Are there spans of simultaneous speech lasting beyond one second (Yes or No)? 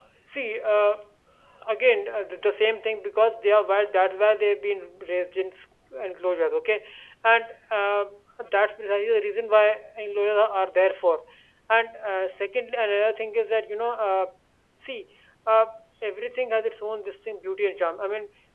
No